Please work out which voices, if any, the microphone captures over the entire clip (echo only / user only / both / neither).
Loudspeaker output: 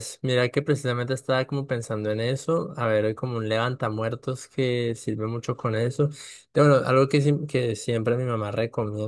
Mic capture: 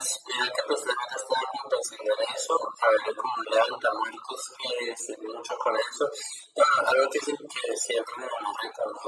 echo only